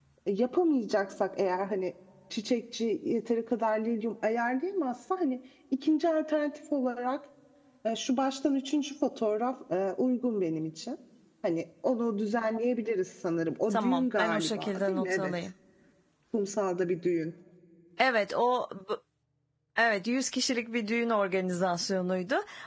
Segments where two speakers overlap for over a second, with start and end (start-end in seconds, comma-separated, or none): 13.7-15.3